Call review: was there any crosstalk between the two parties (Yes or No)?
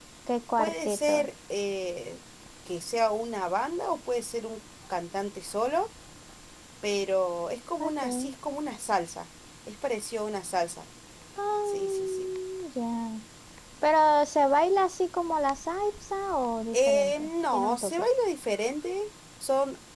Yes